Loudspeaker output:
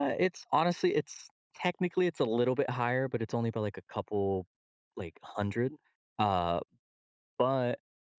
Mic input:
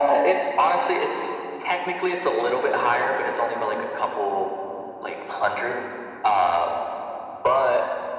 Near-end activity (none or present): none